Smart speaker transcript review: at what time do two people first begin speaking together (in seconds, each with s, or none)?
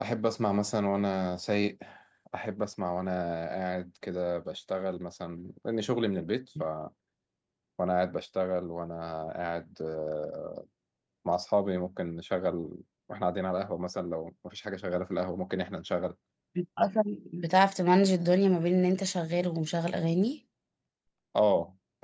none